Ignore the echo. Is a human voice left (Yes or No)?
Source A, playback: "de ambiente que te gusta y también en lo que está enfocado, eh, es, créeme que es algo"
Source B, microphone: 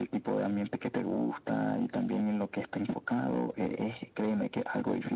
No